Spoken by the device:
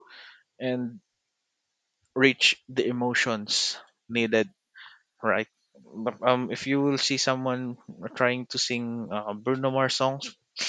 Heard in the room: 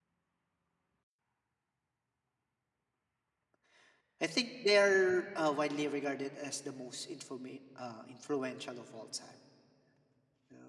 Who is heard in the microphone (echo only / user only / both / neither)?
user only